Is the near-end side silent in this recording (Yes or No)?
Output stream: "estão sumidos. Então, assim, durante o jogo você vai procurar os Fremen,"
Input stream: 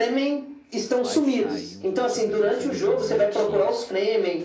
No